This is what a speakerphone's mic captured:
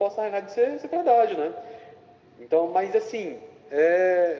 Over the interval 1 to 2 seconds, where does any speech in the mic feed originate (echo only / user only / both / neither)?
echo only